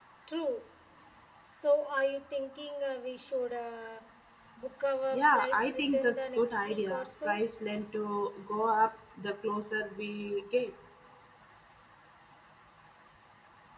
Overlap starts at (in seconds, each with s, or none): 5.1 s